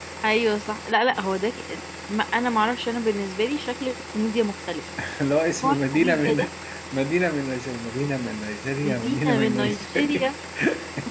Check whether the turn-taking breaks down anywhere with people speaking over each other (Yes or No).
Yes